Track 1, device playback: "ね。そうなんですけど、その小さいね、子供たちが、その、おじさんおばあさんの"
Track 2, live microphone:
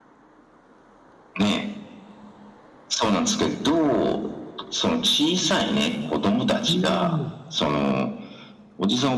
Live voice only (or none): うん。